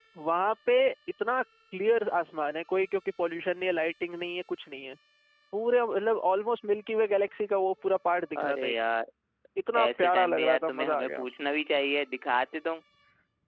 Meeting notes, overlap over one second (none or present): present